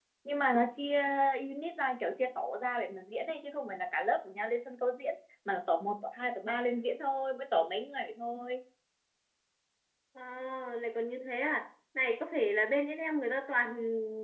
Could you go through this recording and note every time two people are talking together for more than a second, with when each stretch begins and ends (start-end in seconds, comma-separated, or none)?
none